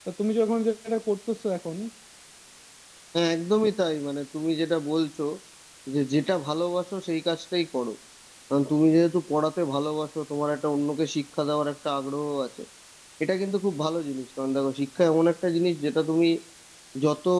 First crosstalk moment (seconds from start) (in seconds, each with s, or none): none